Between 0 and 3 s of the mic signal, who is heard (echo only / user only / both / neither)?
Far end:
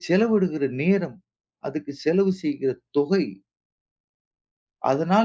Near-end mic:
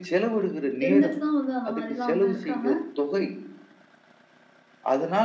both